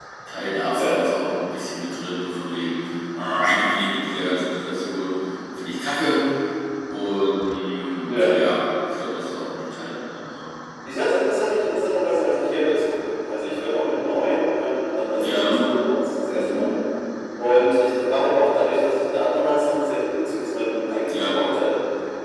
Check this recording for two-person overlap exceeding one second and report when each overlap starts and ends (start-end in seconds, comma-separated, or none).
none